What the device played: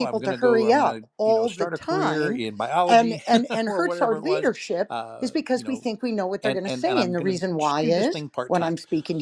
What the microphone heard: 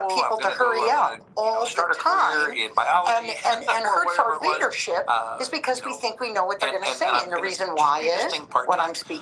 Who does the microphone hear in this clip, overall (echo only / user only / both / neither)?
echo only